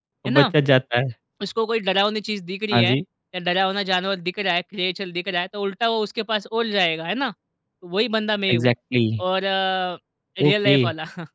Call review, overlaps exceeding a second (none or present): none